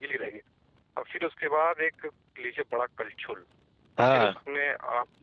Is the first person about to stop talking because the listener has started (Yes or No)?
No